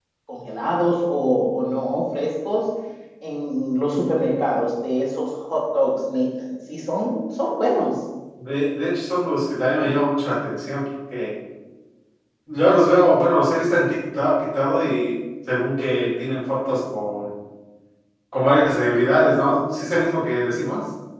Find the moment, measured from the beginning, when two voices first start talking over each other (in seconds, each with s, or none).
none